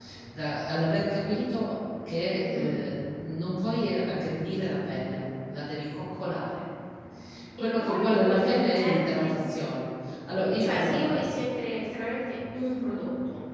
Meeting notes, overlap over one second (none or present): present